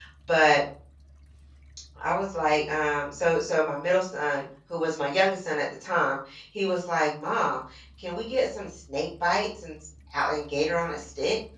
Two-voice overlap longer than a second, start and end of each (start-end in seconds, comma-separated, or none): none